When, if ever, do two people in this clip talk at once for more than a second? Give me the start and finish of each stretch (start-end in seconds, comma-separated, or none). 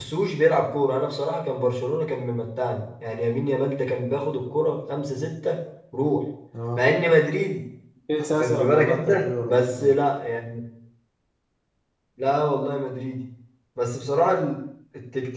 8.3-9.9